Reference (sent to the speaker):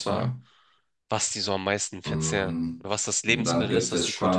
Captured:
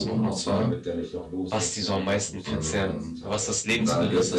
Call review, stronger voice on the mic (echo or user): echo